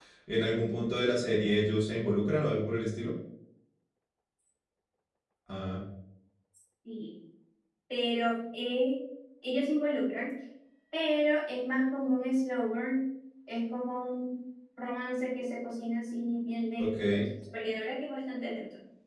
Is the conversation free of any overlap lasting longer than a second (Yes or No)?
Yes